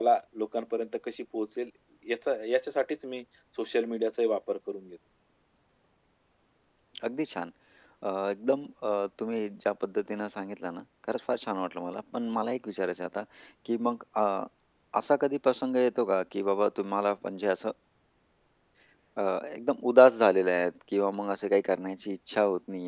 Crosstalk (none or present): none